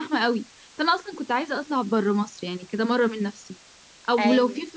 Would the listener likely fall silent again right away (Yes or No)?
Yes